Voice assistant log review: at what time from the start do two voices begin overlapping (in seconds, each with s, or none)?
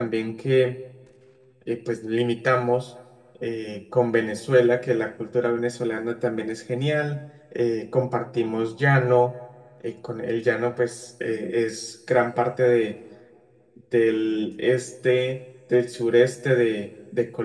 none